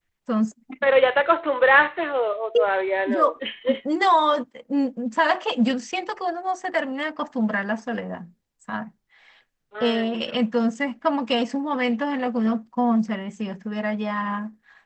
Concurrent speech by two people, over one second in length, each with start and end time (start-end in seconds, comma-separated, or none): none